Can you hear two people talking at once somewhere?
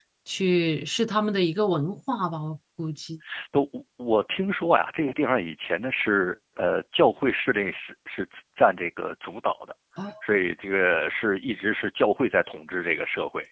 No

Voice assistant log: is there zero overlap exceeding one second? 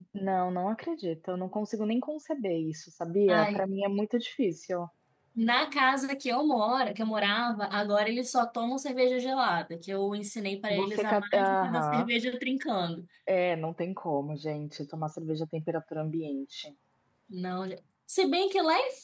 No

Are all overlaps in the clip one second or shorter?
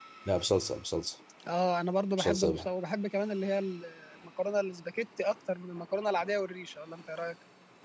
Yes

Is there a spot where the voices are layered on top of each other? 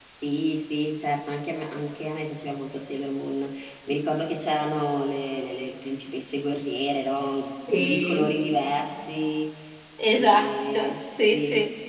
Yes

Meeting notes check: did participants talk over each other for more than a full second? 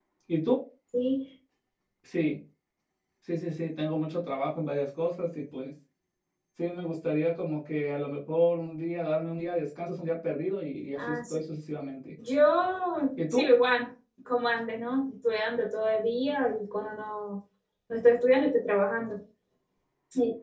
No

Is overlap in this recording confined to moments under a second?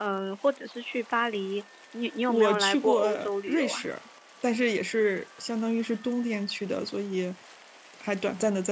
No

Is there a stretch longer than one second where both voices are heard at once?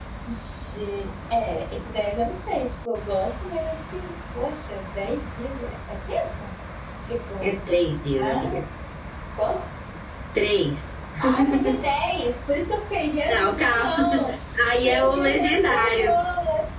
Yes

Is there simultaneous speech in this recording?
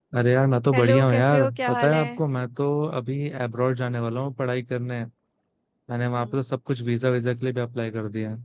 Yes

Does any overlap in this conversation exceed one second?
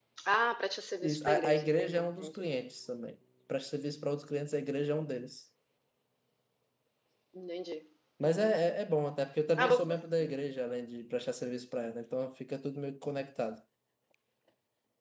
Yes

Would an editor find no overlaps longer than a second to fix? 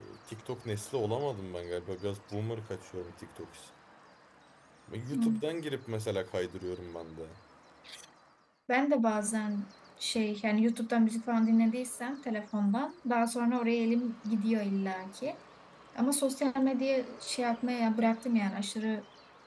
Yes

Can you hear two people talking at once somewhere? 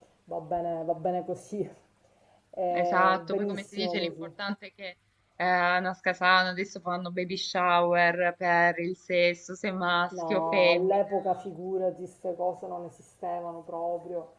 Yes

